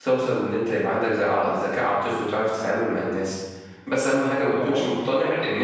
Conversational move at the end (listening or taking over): listening